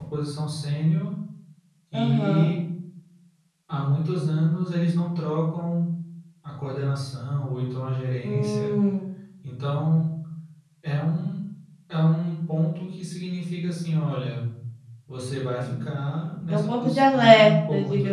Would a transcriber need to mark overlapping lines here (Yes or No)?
Yes